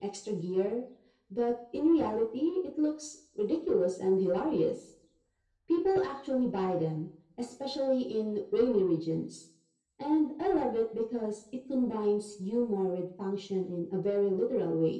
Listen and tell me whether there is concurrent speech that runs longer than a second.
No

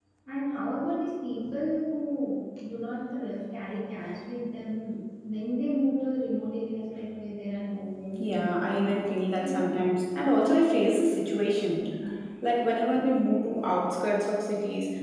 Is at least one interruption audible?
Yes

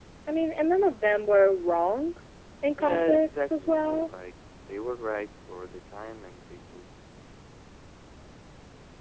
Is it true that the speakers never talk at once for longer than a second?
No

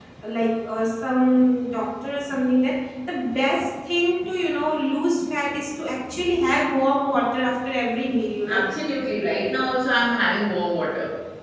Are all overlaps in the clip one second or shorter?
Yes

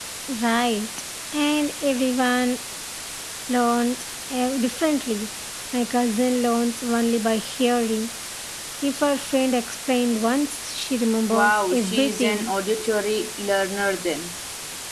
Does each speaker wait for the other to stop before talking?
No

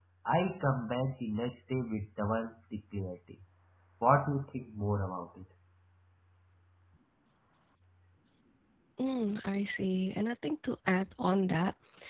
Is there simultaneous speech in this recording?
No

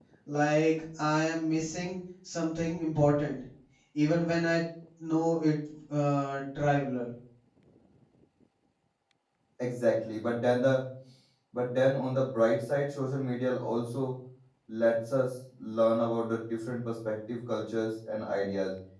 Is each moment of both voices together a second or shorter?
Yes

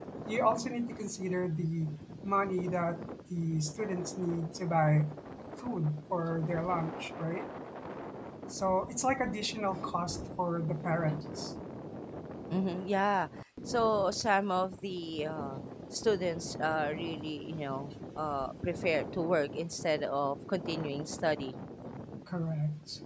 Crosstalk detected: No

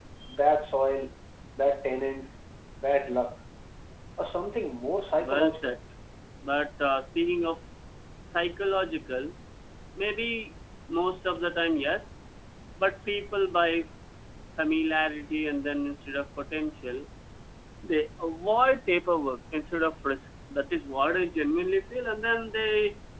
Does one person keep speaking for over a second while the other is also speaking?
No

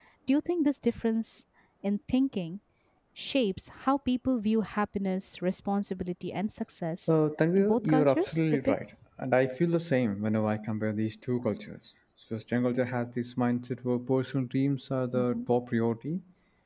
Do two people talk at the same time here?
Yes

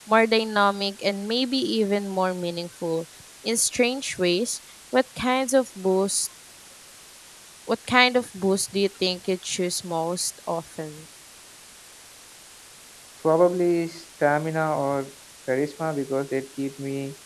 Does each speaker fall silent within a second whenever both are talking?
Yes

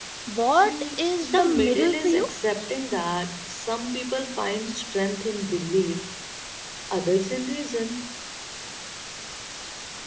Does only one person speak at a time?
No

